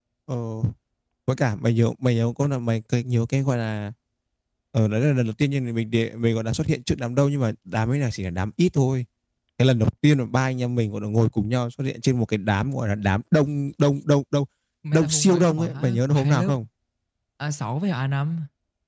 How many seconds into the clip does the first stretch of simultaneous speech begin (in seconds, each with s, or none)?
14.9 s